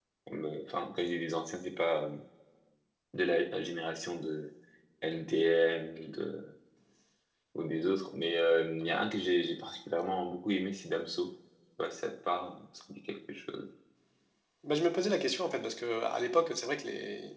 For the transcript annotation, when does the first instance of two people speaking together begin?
none

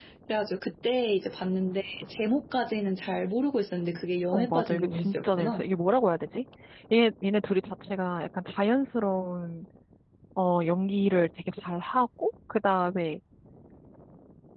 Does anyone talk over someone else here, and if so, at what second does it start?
4 s

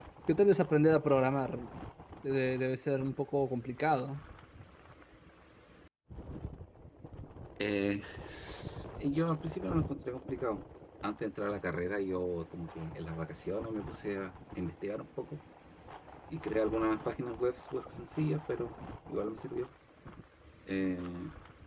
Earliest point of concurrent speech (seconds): none

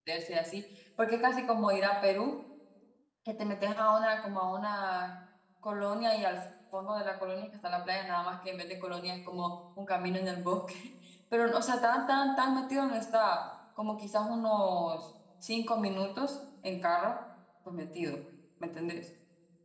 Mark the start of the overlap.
none

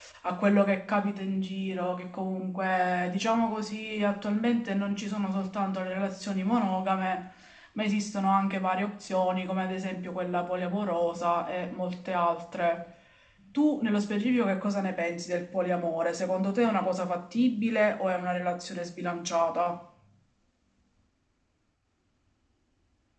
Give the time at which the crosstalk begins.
none

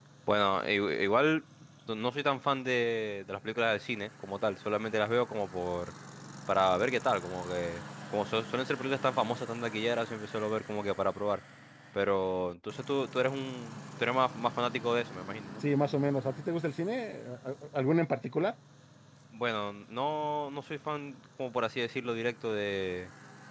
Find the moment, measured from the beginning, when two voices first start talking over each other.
none

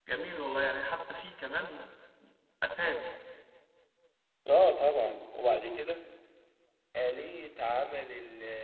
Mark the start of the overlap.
none

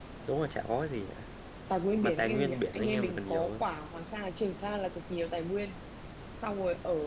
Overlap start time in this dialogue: 2 s

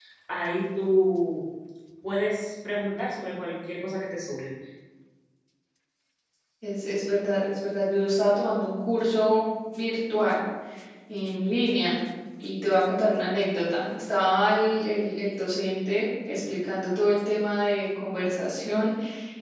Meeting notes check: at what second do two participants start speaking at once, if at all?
none

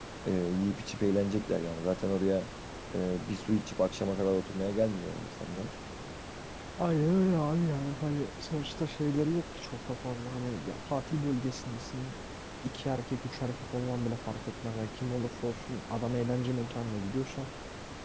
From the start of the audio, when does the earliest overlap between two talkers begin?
none

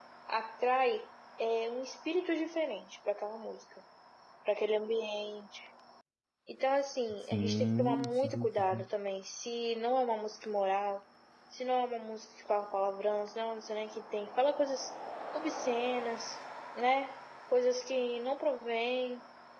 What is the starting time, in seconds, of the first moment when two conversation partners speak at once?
7 s

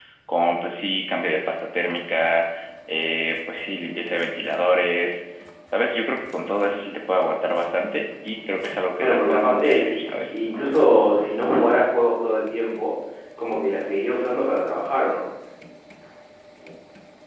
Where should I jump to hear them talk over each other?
9 s

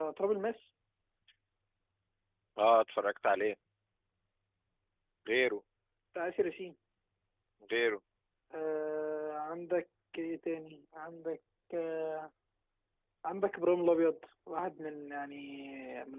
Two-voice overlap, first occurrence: none

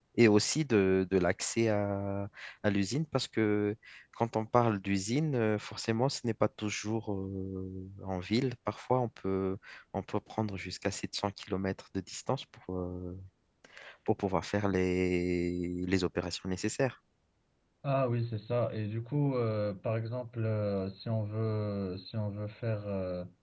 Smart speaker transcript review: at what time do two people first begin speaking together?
none

